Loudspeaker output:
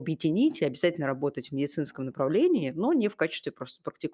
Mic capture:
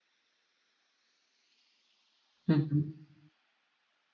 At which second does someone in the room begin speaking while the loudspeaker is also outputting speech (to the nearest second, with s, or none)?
2 s